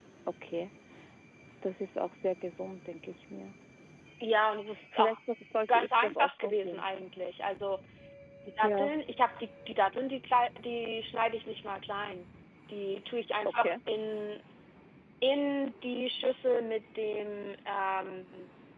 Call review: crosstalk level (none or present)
present